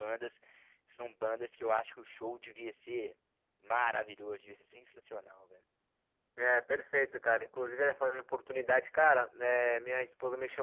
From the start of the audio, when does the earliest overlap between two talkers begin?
none

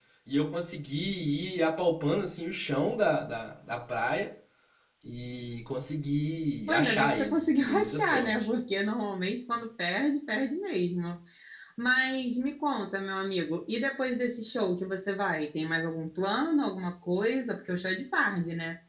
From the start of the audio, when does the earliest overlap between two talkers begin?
7 s

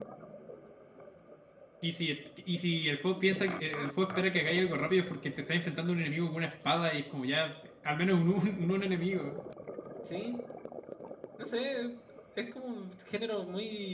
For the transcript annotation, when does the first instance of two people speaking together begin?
none

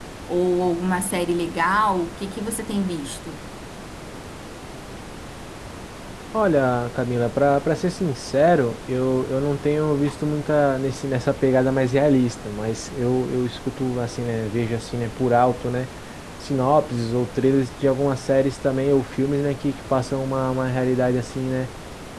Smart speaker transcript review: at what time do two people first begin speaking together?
none

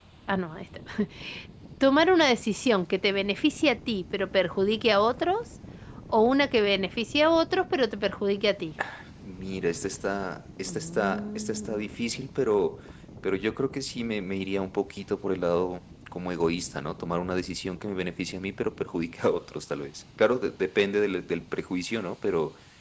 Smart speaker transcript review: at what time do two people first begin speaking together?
11 s

